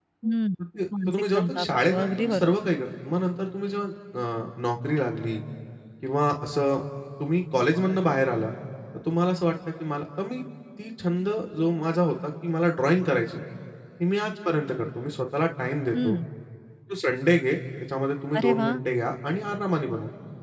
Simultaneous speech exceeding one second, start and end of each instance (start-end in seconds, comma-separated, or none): 1.1-2.5